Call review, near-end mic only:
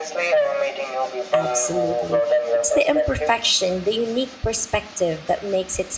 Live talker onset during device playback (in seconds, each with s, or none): 1.3 s